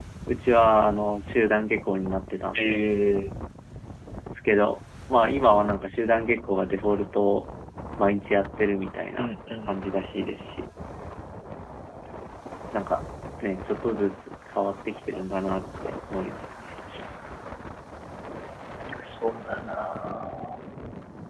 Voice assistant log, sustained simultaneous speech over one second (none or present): none